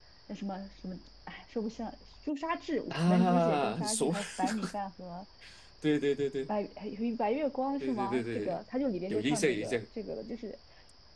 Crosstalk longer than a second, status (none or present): present